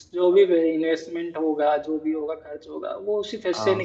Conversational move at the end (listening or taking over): listening